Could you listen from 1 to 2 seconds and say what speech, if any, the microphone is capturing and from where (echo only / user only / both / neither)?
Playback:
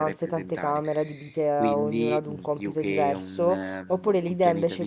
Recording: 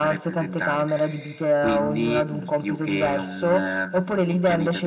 echo only